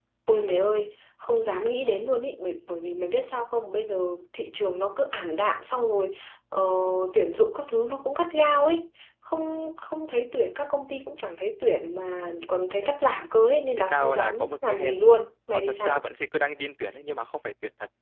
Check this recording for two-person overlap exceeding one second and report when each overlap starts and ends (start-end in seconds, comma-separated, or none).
13.8-15.0